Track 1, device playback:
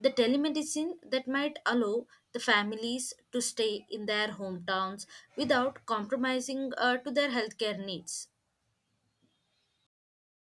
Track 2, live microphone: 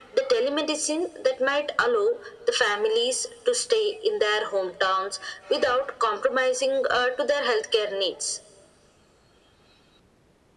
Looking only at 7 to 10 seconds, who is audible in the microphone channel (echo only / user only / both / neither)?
echo only